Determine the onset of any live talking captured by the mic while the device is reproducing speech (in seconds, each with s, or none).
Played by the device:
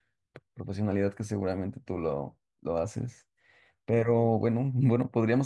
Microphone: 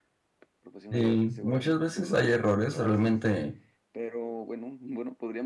0.9 s